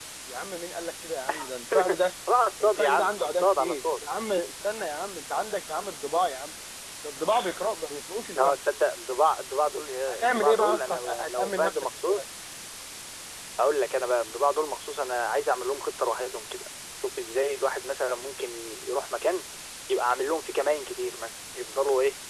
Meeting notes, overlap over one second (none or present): present